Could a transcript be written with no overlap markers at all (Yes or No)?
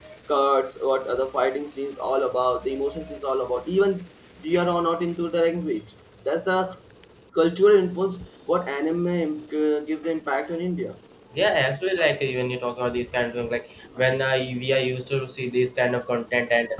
Yes